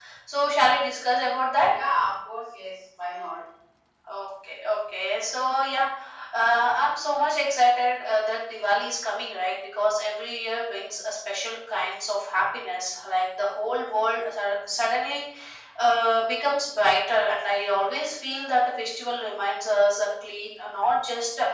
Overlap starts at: none

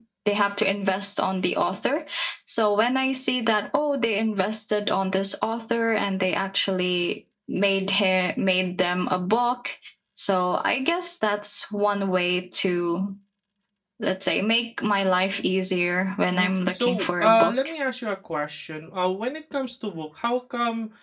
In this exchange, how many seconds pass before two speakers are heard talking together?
16.3 s

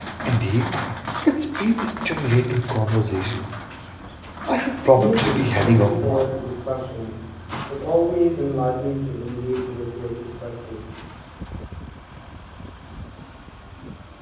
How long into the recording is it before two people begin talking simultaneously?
5.0 s

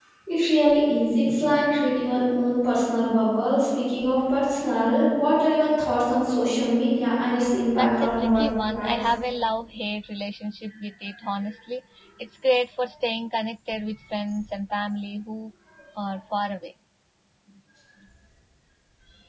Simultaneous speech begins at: 7.7 s

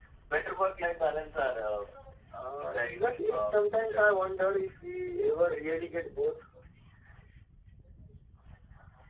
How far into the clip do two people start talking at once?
2.6 s

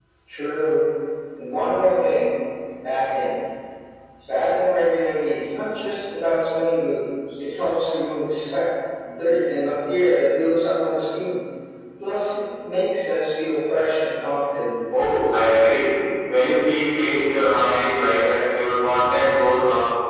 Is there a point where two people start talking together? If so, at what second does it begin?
none

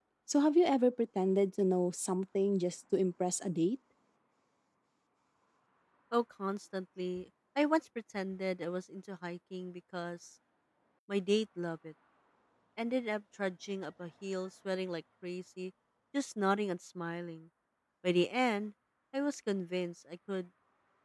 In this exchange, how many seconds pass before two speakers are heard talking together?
none

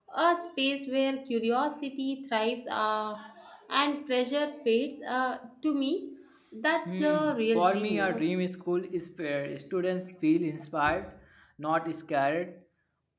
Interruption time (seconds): 6.8 s

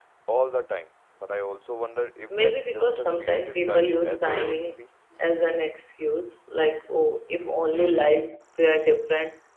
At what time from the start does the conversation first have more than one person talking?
2.3 s

